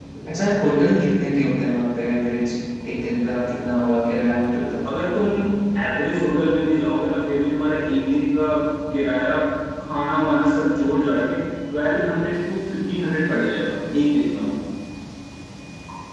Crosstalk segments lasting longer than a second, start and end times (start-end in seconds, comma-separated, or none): none